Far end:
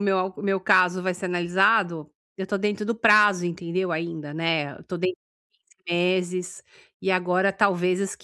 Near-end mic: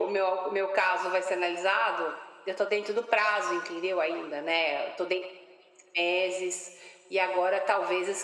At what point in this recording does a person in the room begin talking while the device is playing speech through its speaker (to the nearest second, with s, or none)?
none